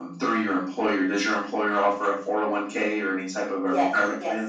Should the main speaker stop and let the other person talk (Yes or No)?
Yes